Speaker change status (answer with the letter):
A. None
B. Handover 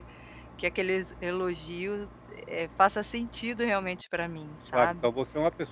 B